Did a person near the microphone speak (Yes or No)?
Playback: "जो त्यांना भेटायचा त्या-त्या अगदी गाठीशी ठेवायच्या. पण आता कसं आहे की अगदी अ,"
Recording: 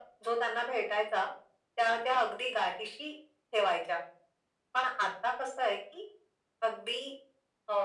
No